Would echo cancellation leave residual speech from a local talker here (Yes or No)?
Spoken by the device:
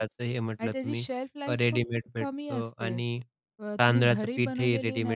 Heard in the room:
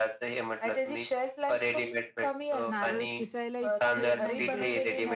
Yes